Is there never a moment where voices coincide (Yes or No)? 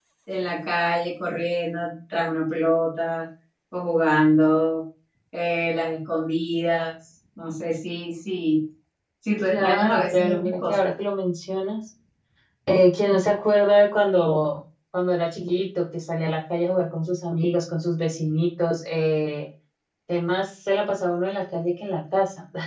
No